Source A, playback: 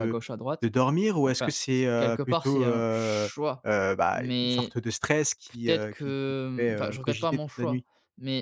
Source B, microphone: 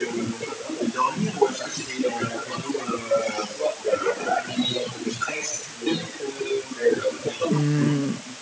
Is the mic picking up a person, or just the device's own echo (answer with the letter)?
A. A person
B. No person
A